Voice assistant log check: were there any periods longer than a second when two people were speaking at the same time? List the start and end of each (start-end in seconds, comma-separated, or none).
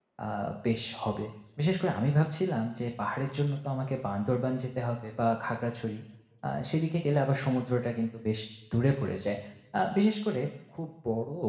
none